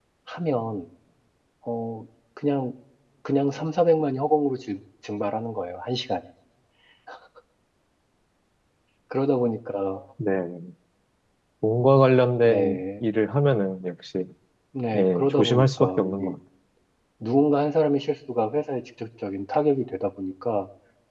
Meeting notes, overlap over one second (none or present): present